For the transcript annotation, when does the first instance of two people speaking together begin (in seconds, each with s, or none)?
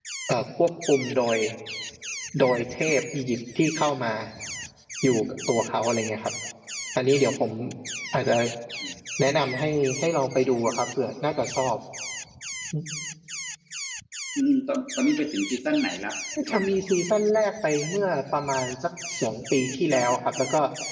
none